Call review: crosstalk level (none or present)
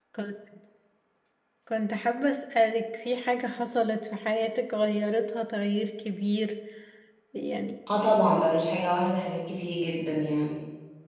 none